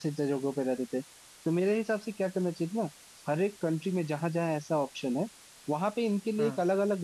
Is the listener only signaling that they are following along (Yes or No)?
Yes